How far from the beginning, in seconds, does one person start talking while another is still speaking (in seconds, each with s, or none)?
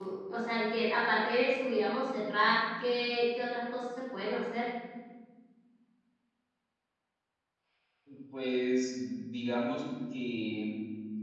none